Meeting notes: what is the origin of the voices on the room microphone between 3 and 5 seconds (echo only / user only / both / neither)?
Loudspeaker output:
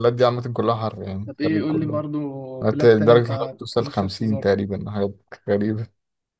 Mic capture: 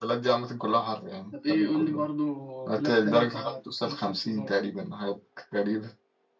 echo only